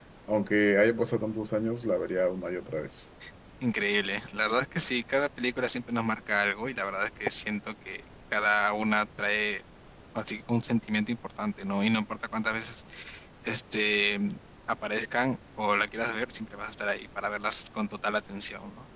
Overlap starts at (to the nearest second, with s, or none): none